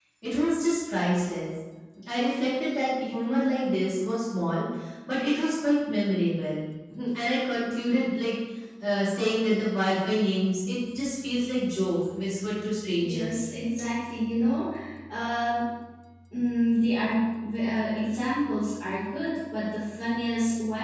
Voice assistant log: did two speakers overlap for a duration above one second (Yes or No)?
No